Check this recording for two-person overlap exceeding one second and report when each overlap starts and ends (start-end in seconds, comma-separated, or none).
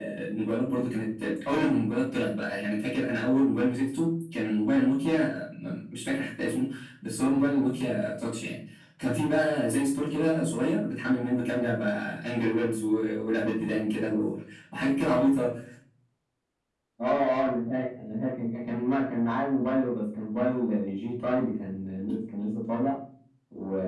none